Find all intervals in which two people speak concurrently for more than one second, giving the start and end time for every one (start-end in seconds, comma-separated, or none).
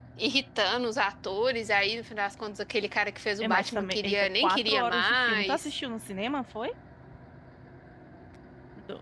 3.4-5.7